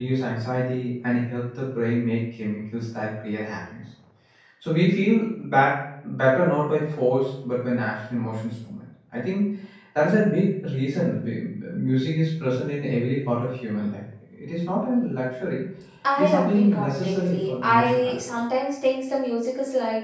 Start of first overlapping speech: 16 s

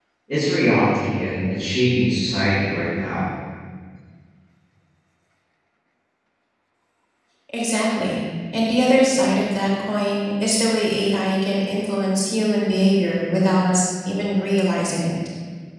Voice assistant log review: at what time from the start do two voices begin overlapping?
none

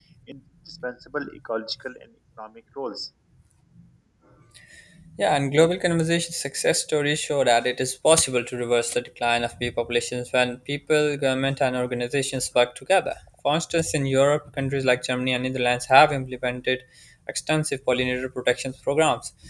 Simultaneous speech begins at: none

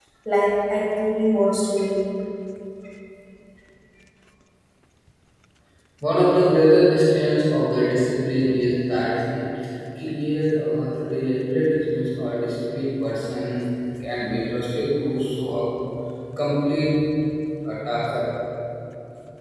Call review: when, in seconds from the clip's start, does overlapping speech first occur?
none

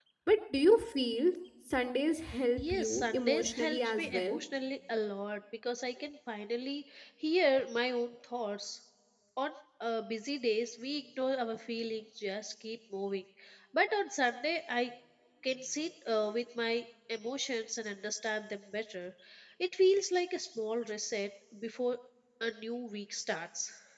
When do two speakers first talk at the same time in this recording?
3 s

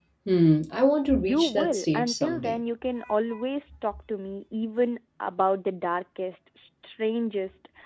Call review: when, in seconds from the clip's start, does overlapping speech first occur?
1 s

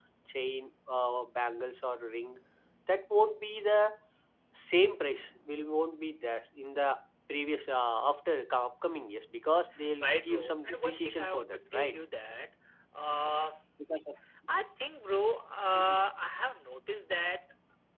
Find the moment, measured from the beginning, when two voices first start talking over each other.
10 s

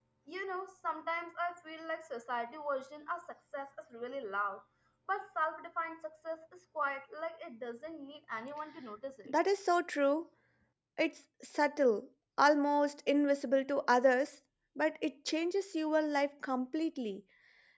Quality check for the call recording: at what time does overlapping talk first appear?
none

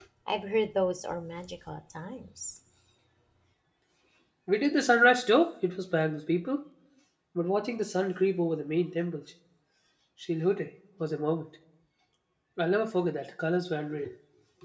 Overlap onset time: none

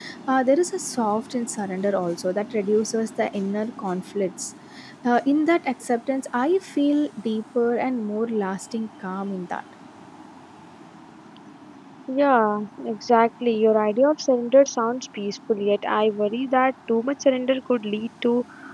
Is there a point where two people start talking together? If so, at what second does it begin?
none

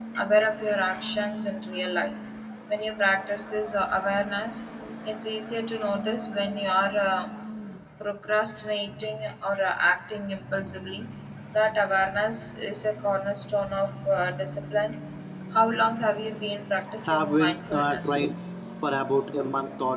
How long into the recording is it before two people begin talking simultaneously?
17 s

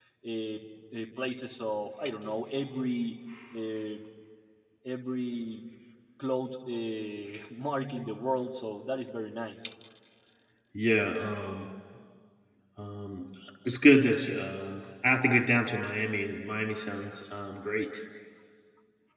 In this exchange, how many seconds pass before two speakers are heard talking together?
none

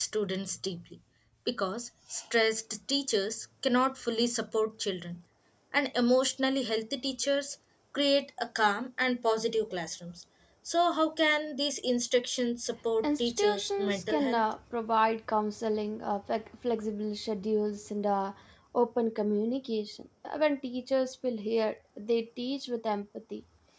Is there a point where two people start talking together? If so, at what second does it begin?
13 s

